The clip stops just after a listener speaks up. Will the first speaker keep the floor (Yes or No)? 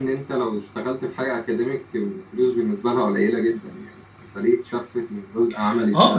No